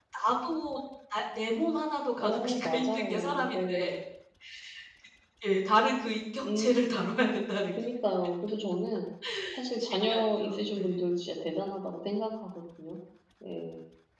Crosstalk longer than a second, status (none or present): present